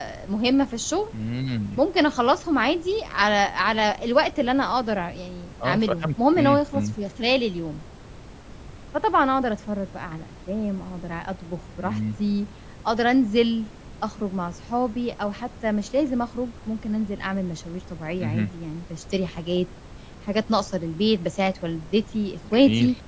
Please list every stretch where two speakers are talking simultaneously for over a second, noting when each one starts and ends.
5.6-6.9

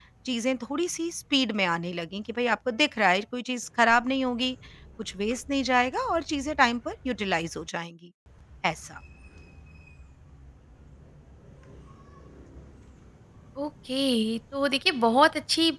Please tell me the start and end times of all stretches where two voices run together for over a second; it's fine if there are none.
none

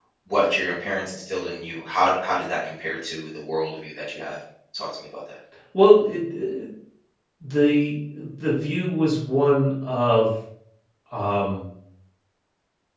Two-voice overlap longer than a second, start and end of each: none

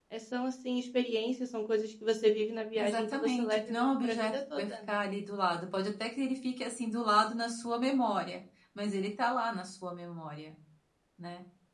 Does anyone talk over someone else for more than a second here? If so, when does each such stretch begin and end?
2.8-4.9

